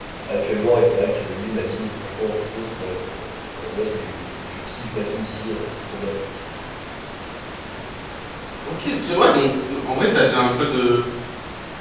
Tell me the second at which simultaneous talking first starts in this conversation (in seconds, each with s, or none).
none